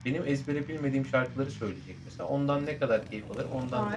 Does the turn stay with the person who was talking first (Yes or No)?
No